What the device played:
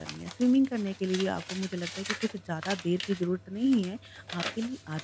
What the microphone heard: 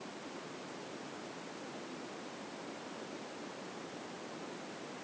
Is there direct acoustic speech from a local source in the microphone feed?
No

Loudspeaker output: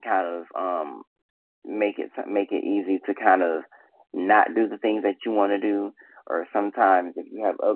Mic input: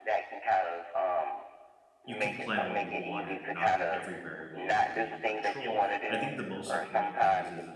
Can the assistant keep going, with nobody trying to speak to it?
No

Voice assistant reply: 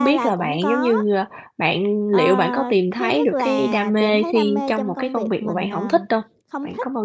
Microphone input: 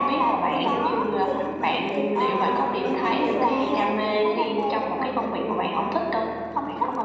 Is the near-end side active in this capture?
Yes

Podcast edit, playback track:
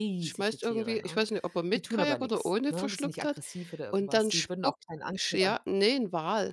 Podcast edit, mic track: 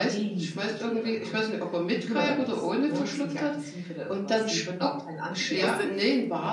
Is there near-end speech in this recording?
Yes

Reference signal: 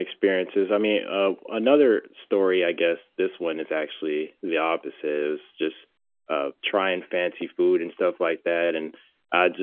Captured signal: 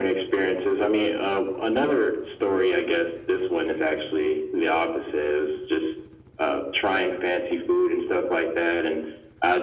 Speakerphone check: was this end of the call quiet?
Yes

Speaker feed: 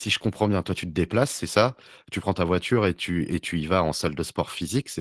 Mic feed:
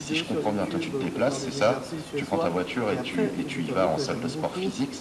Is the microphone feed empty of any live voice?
No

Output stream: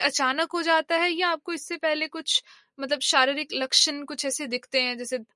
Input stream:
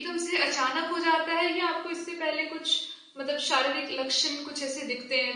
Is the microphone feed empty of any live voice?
Yes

